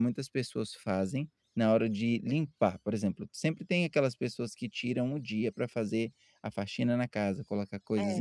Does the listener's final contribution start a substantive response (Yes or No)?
No